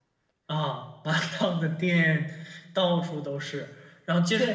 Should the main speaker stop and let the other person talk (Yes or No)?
No